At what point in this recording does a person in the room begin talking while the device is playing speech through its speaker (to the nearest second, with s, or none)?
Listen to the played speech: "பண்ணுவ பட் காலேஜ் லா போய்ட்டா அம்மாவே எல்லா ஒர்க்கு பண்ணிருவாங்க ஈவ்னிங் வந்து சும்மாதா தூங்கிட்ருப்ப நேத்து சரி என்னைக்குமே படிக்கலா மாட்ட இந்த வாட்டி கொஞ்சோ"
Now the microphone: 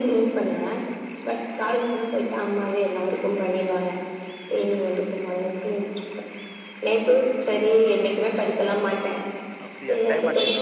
10 s